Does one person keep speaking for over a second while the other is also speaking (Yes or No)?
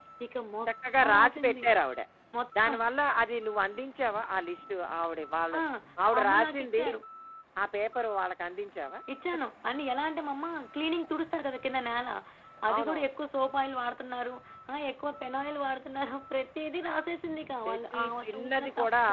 Yes